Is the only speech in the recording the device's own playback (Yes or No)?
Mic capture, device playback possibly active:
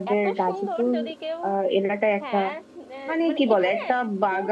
No